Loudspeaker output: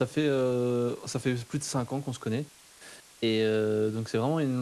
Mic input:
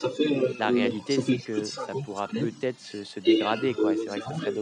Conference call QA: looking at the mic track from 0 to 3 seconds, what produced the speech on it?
both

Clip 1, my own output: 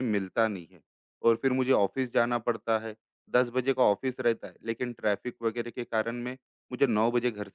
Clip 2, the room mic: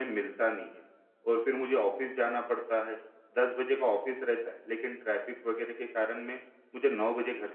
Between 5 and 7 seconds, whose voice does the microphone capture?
echo only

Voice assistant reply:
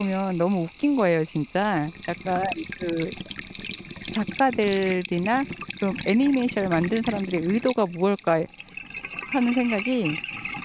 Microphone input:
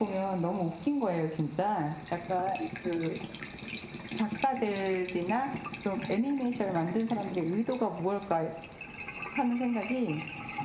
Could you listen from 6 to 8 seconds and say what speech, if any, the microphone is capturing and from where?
echo only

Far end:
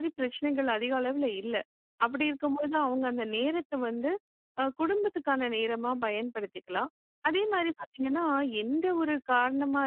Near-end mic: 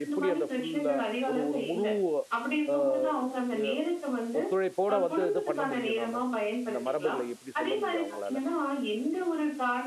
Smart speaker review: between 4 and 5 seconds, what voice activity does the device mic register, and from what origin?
both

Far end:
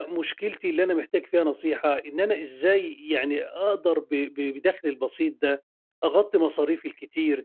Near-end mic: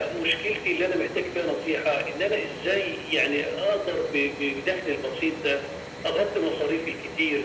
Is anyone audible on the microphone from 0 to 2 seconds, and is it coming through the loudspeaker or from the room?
echo only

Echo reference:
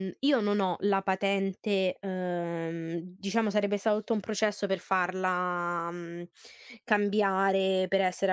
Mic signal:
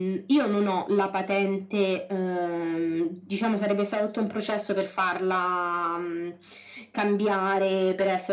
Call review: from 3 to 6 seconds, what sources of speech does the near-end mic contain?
echo only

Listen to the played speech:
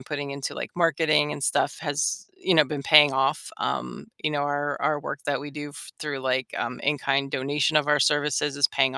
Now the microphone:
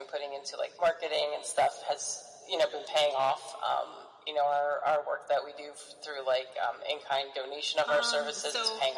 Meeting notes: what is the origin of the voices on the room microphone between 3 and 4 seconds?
echo only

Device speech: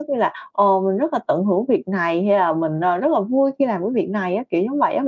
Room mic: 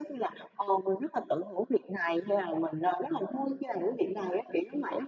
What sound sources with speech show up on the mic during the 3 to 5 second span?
echo only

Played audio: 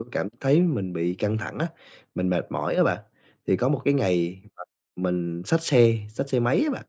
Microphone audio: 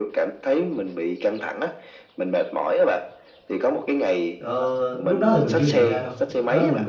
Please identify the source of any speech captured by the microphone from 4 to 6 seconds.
both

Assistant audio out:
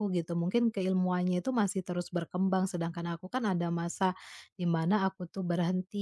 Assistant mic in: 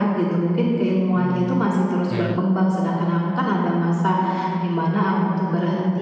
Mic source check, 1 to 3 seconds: both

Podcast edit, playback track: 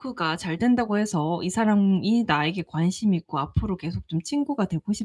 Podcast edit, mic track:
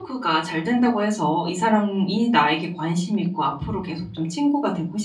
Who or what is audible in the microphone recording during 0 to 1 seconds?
echo only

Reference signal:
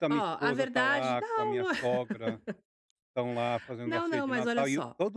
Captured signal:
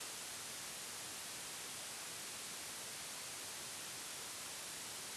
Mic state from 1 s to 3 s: neither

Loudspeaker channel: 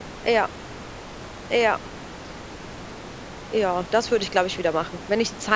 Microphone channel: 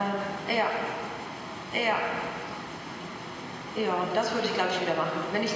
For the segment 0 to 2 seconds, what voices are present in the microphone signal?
echo only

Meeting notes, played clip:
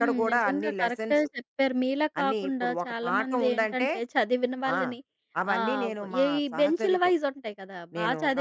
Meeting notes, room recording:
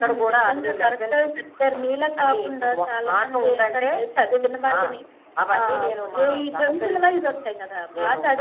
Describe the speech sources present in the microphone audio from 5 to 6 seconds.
echo only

